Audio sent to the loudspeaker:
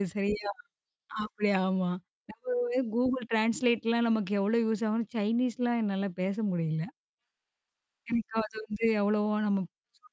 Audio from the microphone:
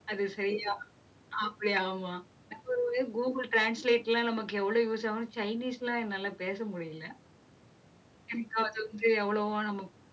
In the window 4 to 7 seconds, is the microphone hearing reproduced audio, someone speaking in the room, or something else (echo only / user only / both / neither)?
echo only